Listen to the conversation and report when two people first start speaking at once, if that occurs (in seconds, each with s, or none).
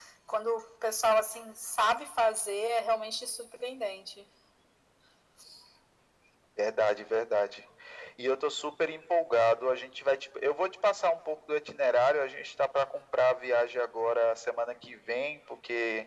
none